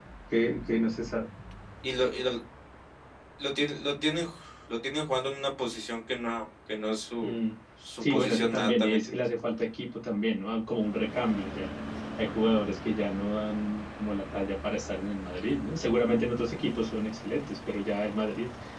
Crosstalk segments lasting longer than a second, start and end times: 8.0-9.2

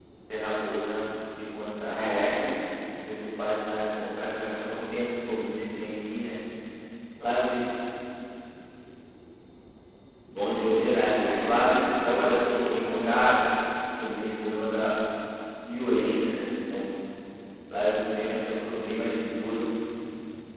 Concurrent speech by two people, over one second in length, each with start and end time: 10.6-13.2

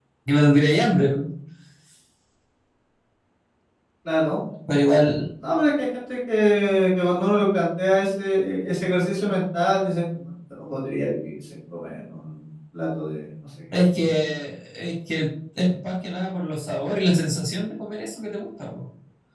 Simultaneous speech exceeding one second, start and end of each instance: none

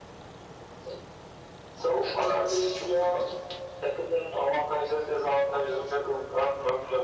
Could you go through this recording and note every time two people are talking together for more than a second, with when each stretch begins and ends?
2.0-3.2

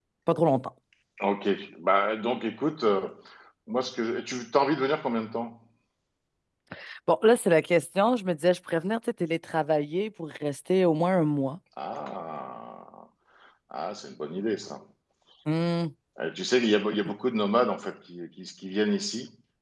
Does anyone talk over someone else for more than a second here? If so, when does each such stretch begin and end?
none

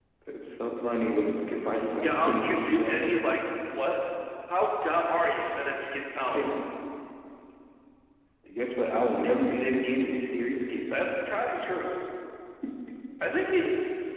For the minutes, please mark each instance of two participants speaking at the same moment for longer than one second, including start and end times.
2.0-3.2

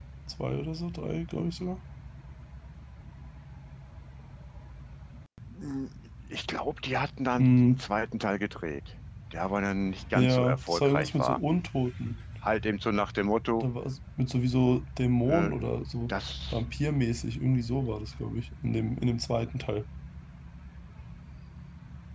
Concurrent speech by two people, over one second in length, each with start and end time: 10.1-11.4

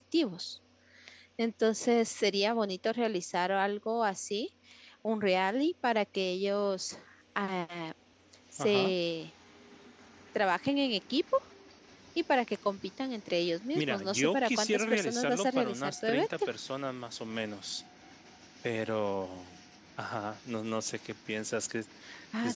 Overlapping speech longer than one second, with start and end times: 13.8-16.3

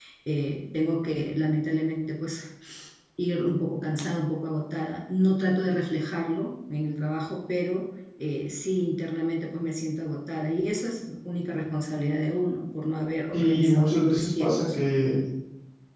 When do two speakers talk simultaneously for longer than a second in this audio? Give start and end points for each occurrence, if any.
13.3-14.8

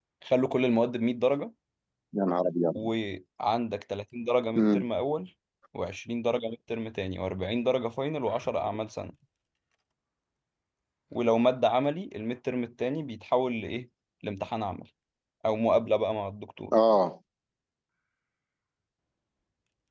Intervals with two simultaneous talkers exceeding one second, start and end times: none

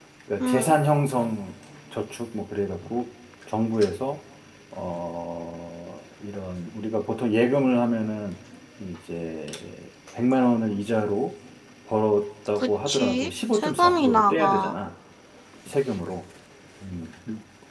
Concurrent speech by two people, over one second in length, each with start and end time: 12.6-14.7

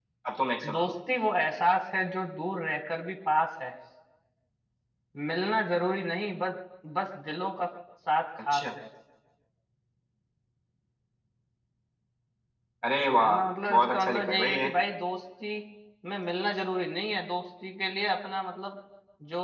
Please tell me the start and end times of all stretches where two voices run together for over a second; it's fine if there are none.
13.2-14.7

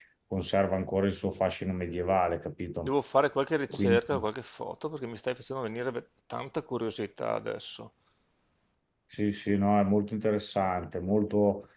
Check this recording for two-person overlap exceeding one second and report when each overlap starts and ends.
none

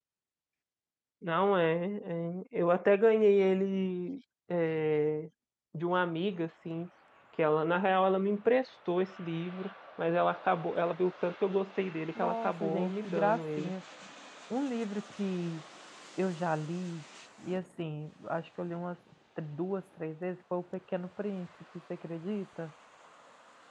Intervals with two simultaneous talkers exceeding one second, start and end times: 12.2-13.7

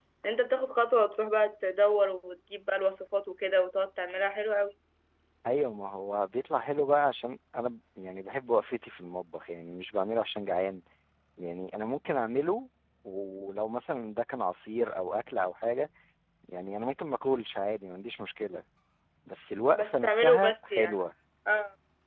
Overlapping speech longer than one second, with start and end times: 19.7-21.0

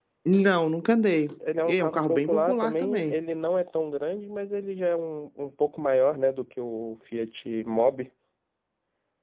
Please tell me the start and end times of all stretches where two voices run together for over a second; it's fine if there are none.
1.7-3.1

